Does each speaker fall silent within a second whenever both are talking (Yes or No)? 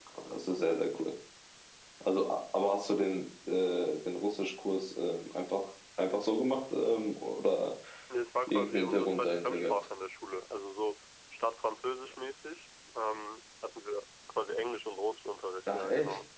No